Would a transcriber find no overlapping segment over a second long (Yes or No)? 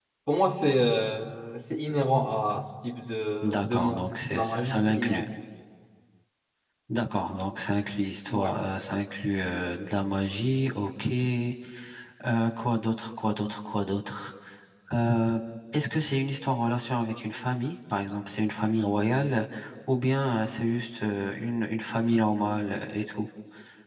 No